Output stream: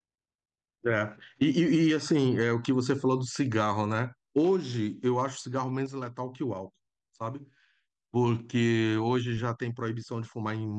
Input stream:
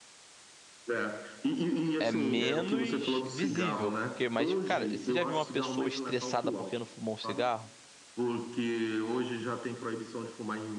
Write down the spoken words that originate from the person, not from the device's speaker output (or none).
é menos visível, porque, mas, cara, você já viu uma pessoa estressada porque não fumou um cigarro?